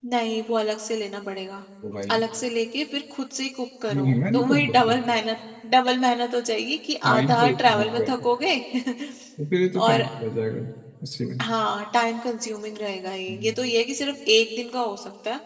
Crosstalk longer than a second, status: present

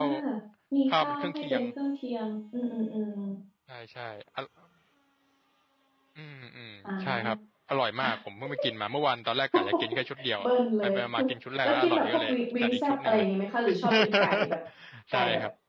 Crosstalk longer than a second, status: present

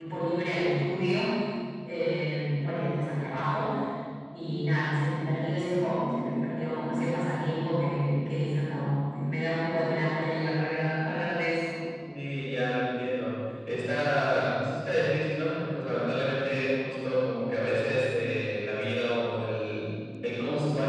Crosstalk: none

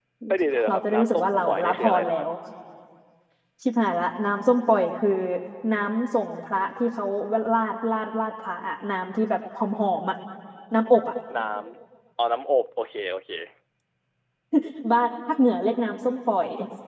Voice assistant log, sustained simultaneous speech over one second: present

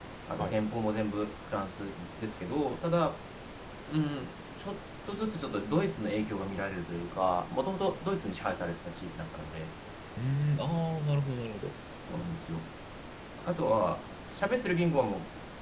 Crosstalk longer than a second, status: none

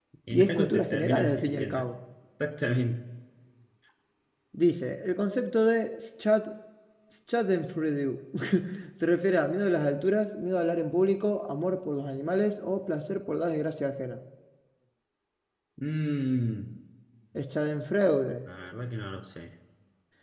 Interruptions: present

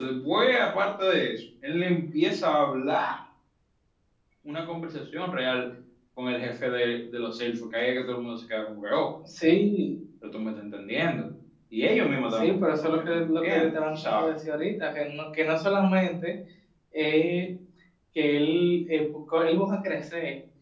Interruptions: present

